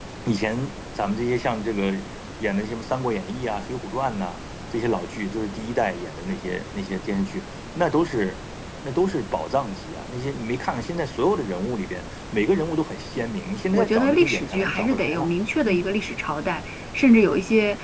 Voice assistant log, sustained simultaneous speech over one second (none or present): present